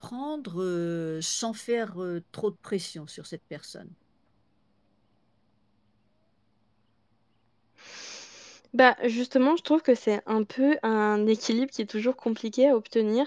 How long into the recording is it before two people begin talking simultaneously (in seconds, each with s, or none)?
none